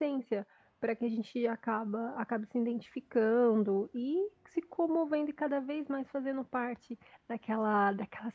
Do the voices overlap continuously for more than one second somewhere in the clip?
No

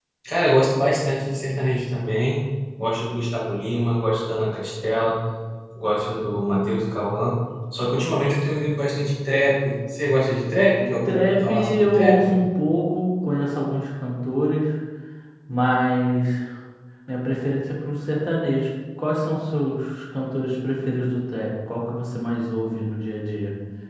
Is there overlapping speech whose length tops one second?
Yes, from 11.1 s

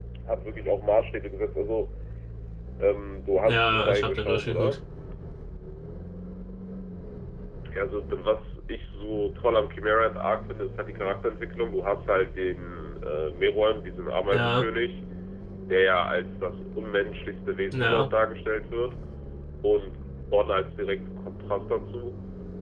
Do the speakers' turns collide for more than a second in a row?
Yes, from 3.4 s

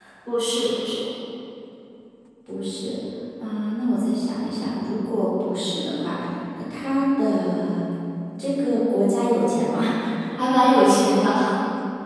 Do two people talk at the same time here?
No

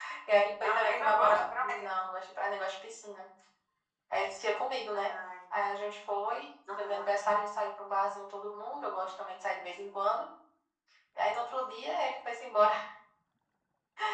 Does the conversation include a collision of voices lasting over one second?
Yes, from 0.6 s

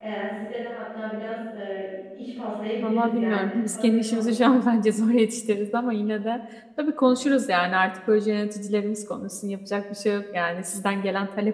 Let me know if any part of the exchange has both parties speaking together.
Yes, from 2.8 s

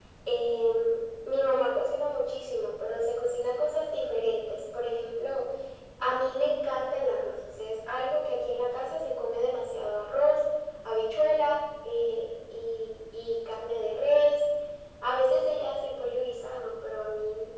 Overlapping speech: No

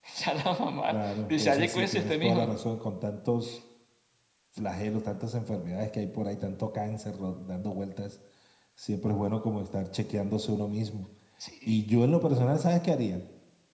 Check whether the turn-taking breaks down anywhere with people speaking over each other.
Yes, from 0.9 s

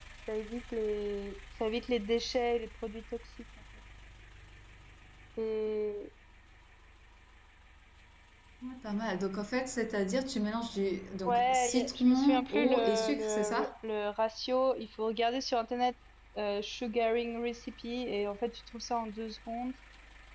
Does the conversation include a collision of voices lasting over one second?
Yes, from 11.2 s

